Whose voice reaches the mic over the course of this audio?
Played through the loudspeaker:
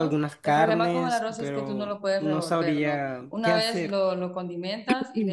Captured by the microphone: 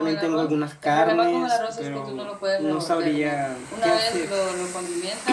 echo only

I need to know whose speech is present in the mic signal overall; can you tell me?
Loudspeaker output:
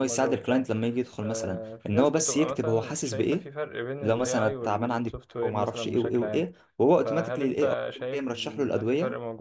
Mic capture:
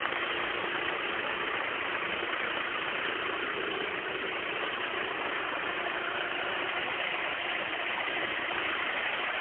neither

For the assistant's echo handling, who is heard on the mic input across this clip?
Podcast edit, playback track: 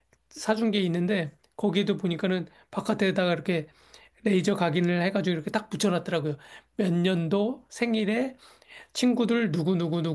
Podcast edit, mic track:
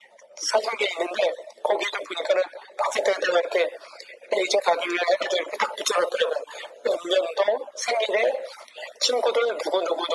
echo only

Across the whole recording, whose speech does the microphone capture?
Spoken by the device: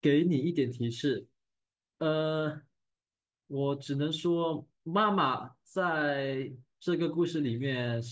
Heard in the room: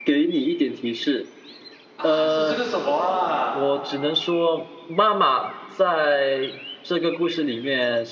both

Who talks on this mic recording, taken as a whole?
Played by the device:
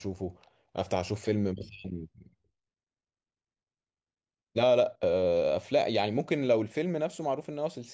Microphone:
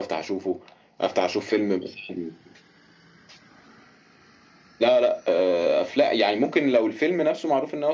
echo only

